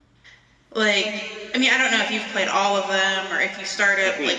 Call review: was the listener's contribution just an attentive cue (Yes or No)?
No